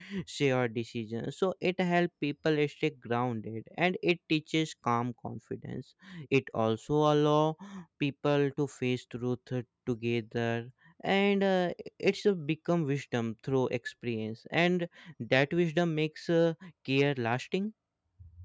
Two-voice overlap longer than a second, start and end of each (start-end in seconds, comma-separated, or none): none